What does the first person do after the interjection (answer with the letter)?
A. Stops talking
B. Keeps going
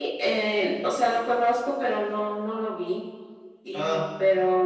B